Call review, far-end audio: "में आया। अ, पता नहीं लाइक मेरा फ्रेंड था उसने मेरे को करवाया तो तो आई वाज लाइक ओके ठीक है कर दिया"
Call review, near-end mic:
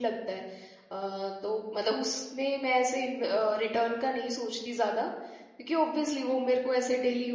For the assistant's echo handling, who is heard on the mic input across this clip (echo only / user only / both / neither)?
user only